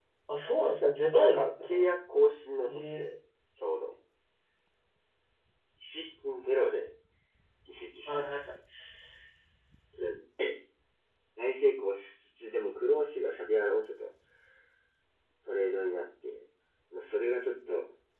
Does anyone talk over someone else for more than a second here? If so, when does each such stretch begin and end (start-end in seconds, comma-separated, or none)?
0.6-1.9